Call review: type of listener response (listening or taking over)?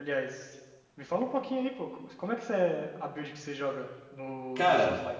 taking over